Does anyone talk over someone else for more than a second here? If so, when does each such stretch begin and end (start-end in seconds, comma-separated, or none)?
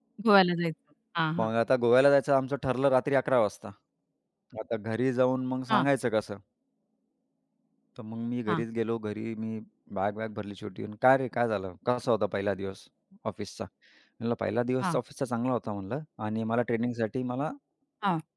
none